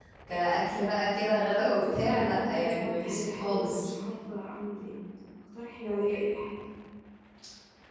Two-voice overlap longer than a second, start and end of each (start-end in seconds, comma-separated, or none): 1.6-3.9